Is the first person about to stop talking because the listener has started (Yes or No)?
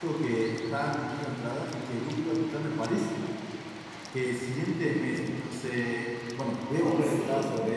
No